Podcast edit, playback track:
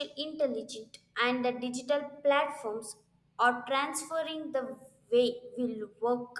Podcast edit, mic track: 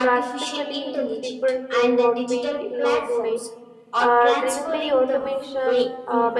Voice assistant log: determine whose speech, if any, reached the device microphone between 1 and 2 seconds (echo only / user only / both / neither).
both